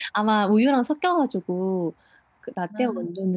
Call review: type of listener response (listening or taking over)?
listening